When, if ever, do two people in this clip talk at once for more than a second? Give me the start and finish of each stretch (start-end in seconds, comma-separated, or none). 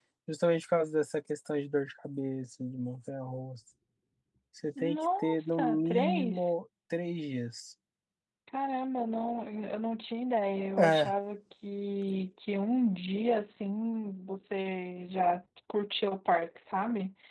4.8-6.5